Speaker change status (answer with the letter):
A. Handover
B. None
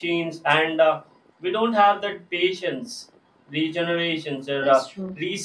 B